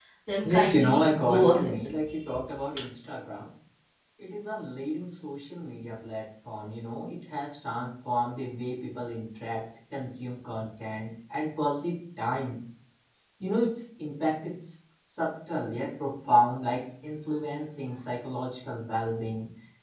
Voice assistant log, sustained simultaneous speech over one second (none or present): present